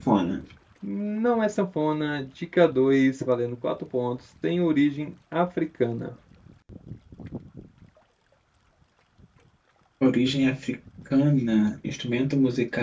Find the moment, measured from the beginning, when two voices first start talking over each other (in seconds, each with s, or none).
none